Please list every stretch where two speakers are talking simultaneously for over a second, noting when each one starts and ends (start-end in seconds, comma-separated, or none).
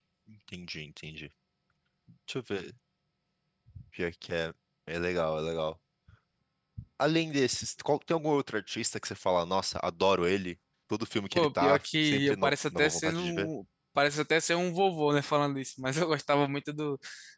11.4-13.5